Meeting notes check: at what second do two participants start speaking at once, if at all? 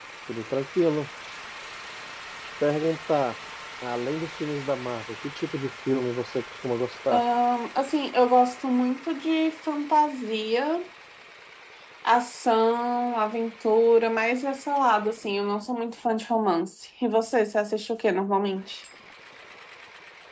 none

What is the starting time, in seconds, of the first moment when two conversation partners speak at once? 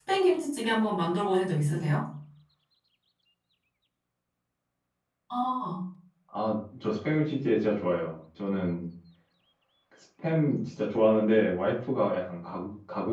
none

